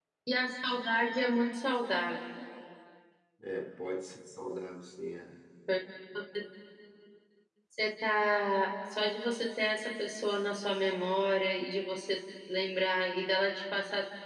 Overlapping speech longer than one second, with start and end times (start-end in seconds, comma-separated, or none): none